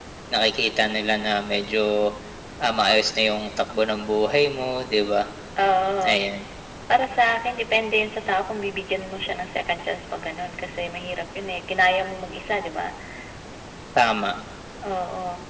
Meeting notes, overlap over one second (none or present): none